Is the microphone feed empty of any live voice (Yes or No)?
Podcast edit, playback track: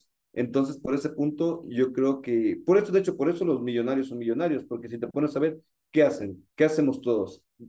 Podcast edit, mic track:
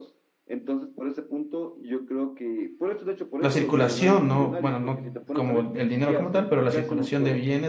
No